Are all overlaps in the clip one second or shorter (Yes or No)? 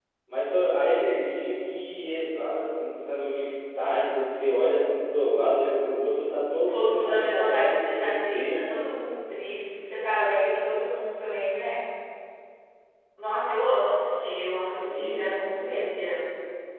No